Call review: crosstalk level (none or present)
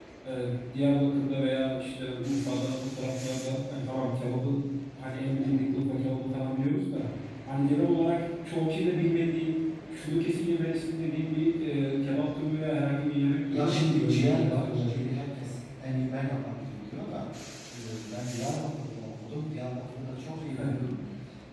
present